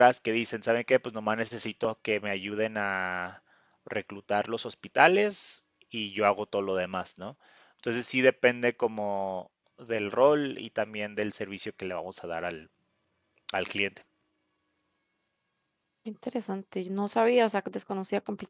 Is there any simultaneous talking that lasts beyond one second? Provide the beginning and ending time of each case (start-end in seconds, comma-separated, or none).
none